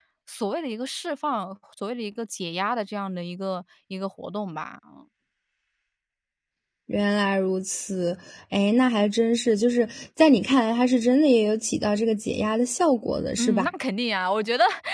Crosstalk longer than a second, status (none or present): none